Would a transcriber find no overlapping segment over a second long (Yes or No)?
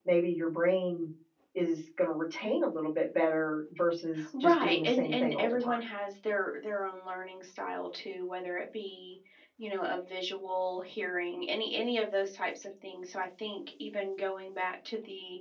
No